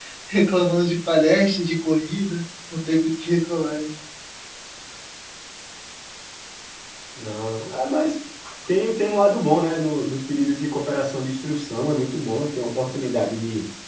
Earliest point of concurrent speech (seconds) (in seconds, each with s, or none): none